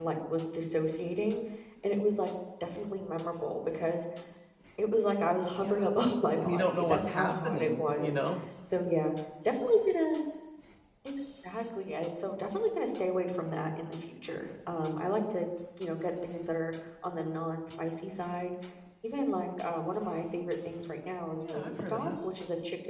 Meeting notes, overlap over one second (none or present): present